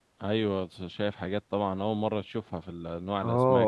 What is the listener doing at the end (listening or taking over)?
taking over